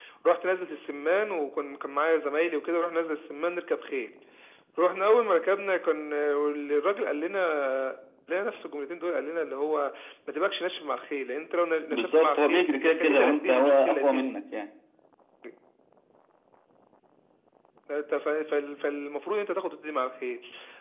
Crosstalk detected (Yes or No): Yes